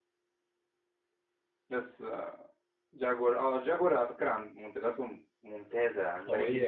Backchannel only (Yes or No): No